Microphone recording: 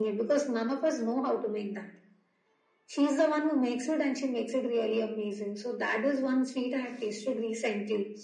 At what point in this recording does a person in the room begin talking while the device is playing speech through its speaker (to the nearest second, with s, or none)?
none